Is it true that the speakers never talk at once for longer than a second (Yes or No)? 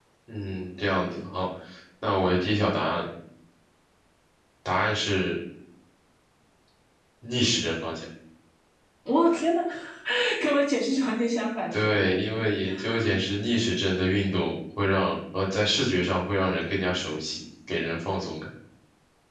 Yes